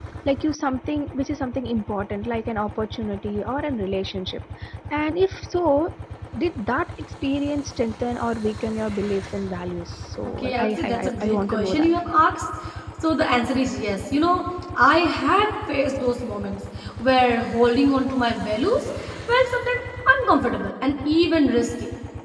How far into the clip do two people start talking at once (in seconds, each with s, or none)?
10.4 s